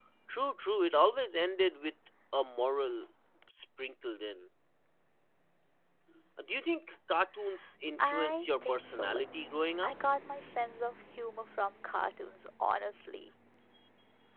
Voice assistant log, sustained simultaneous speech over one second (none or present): present